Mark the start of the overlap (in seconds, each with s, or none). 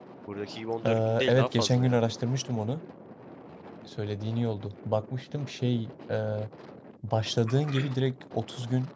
0.9 s